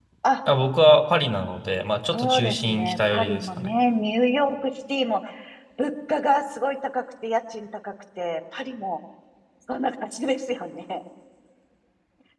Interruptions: present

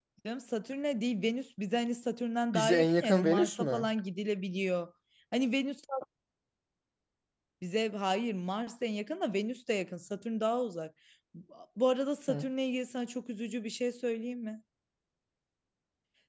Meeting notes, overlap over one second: present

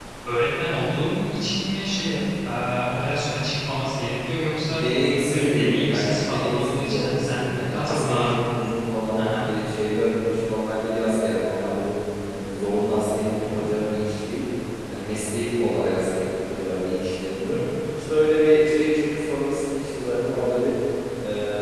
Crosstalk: present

